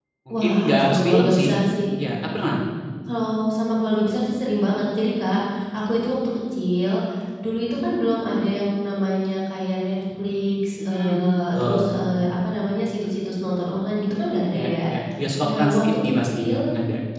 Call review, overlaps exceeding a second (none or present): present